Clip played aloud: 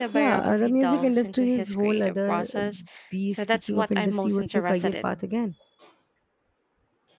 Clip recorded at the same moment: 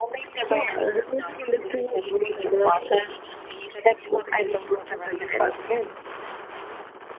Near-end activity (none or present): none